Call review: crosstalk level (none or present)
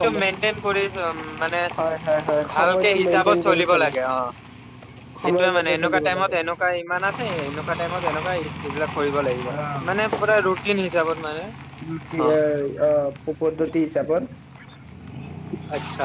present